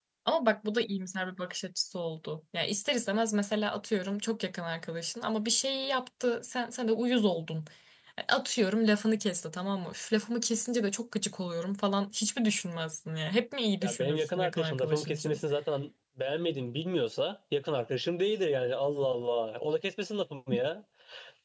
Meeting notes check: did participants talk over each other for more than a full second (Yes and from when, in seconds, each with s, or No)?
Yes, from 13.8 s